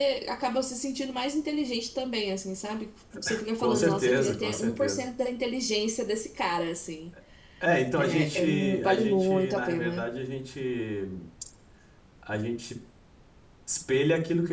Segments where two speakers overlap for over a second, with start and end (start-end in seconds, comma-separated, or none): 3.6-5.0, 8.0-10.0